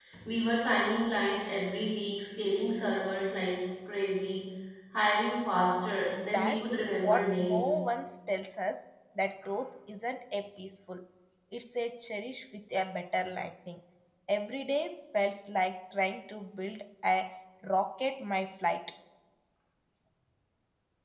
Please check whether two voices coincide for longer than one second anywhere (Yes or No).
Yes